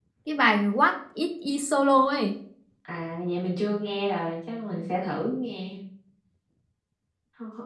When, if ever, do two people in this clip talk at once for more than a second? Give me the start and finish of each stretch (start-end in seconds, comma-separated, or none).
none